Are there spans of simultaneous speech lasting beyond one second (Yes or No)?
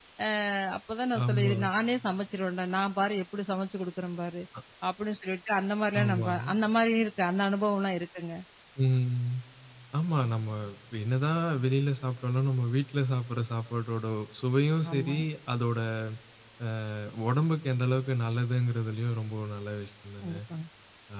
No